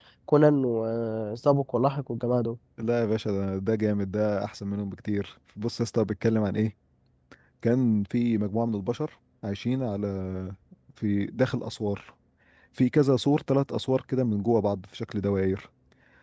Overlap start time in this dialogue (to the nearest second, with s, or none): none